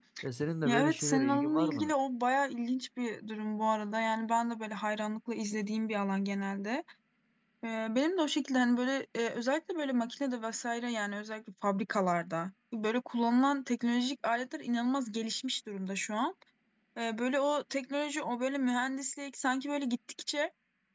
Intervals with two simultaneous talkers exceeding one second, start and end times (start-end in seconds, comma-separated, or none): 0.6-1.9